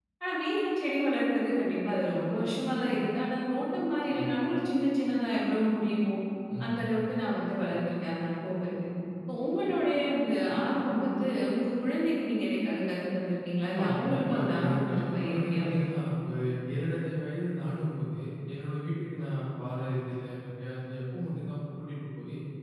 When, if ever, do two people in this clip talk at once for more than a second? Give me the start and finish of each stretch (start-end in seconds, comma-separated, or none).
13.7-15.8